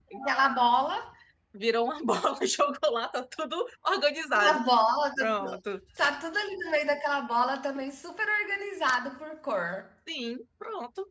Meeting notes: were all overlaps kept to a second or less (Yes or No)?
Yes